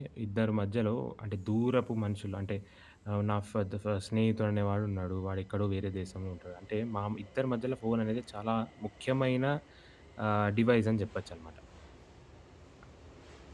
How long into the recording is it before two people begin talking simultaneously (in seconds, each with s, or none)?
none